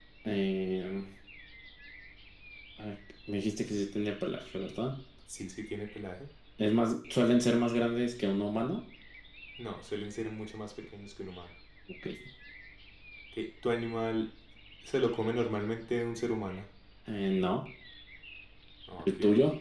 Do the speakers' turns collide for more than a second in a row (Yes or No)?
No